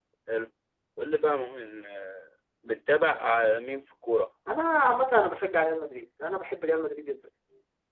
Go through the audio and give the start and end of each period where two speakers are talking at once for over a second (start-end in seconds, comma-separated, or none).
none